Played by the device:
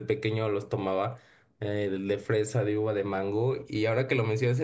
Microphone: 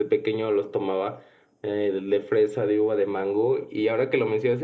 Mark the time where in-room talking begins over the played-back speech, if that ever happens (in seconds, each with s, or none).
none